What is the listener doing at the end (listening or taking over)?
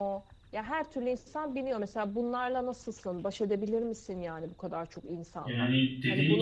taking over